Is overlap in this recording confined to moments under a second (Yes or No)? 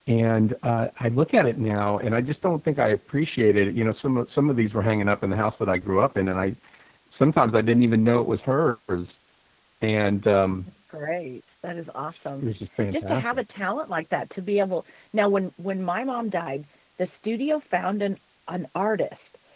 Yes